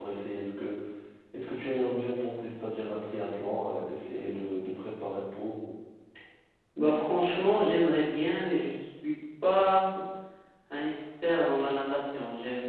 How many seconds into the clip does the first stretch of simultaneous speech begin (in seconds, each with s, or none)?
none